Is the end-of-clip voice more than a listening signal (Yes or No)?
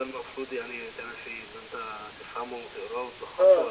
Yes